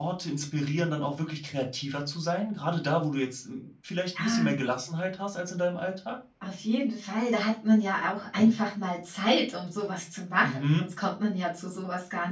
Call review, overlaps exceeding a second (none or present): none